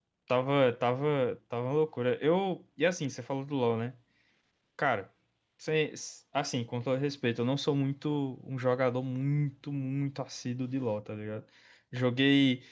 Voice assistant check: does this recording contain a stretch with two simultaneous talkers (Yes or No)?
No